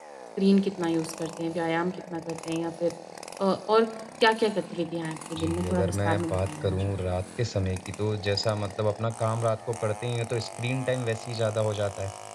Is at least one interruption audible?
Yes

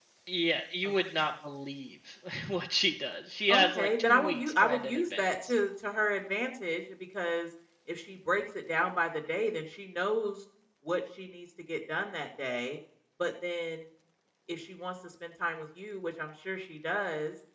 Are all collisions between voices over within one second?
No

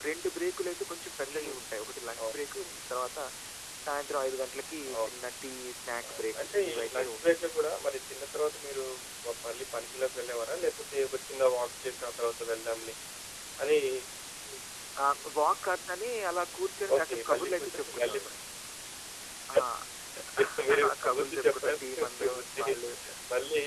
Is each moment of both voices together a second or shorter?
No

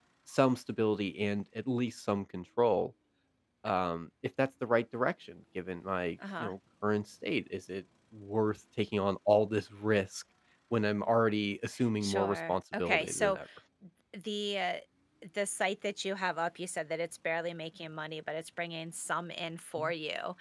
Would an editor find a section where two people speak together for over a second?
Yes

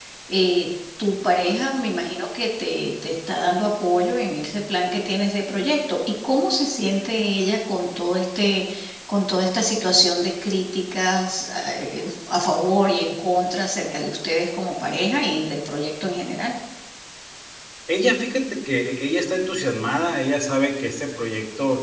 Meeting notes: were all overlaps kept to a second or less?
Yes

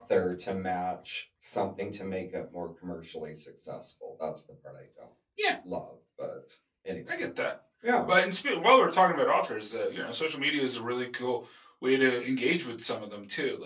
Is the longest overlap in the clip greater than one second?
No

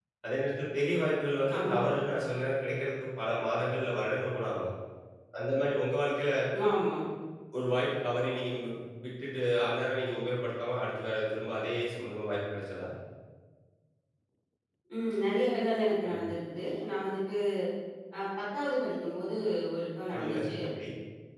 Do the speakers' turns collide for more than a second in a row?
No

